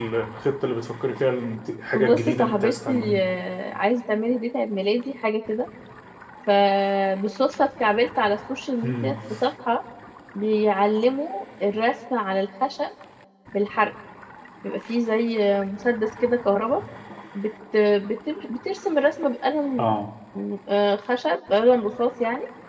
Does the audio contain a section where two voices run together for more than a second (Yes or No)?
Yes